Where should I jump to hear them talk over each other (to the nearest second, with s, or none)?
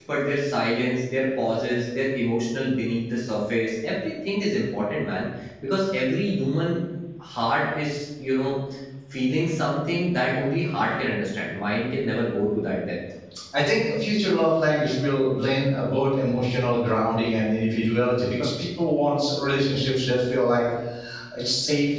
none